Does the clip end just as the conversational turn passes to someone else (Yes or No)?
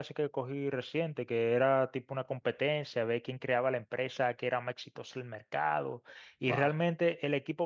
No